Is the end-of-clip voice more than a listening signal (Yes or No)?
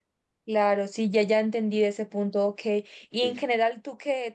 No